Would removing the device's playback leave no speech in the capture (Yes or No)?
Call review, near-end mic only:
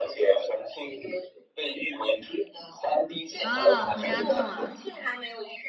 No